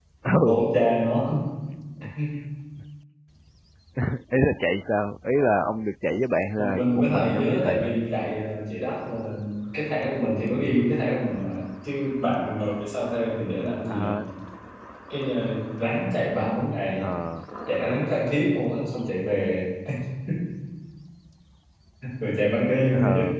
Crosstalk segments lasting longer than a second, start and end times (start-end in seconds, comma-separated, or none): 6.6-8.0